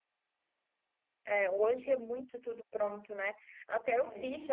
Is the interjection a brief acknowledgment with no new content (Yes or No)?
Yes